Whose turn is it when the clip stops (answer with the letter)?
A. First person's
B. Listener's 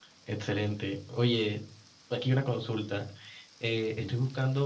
A